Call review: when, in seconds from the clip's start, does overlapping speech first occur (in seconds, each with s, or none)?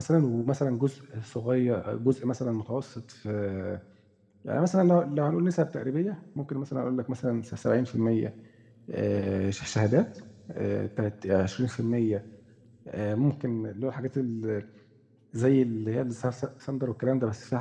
none